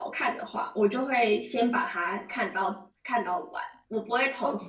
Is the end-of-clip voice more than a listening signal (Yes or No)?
No